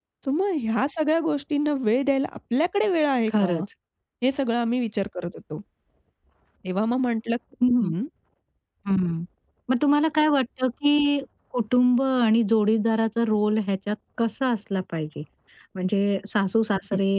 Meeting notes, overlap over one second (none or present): none